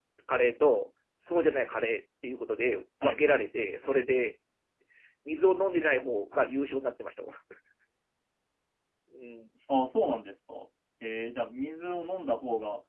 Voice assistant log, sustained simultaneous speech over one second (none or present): none